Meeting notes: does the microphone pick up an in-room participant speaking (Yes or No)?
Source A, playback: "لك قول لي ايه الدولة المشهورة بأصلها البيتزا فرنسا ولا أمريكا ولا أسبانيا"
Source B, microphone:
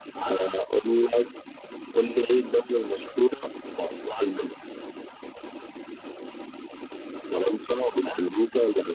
No